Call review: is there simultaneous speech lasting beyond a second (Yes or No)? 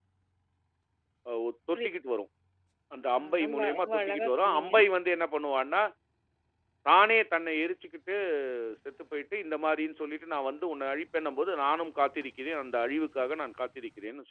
Yes